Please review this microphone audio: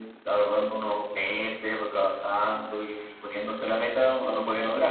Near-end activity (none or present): present